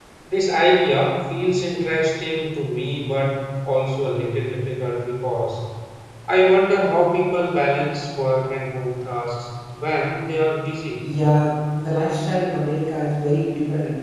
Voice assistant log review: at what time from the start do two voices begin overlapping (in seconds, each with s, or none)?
none